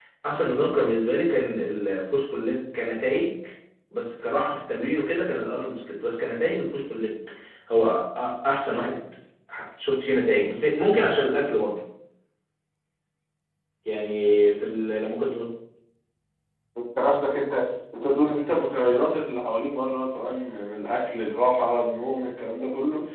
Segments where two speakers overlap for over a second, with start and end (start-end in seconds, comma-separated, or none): none